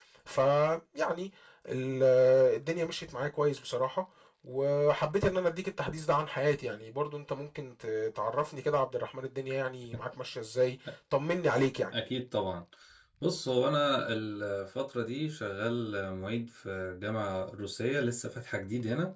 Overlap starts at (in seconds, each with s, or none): none